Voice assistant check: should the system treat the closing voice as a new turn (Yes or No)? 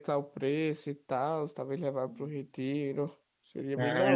Yes